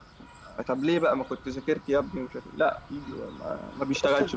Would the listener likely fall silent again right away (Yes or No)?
No